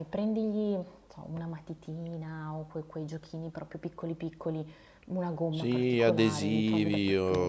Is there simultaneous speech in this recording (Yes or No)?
Yes